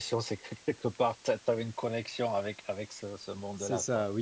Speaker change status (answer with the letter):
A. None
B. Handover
B